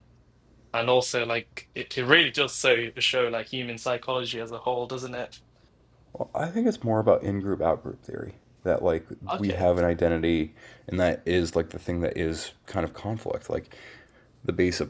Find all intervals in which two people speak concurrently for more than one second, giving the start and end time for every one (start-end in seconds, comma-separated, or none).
none